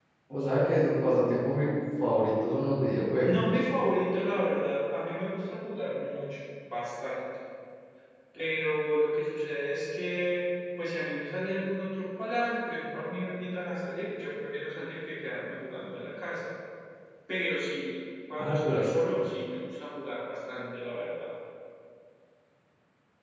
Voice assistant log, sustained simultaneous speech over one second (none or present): none